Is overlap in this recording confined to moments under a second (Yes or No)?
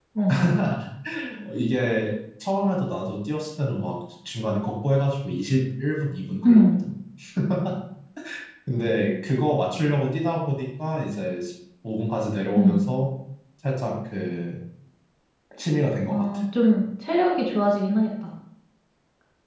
Yes